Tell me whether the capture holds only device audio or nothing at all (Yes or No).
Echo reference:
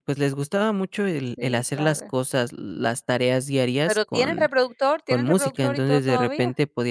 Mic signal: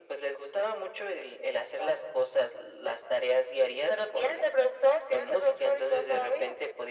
Yes